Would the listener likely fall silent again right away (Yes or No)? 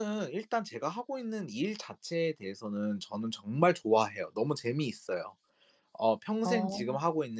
Yes